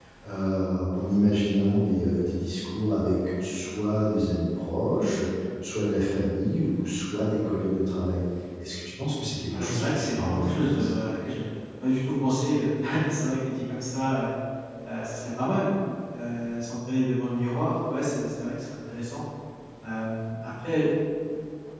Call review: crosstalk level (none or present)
present